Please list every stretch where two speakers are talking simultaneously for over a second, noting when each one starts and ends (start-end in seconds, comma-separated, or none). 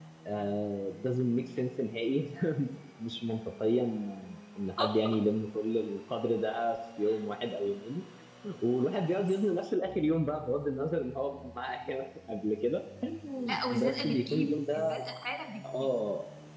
13.7-15.0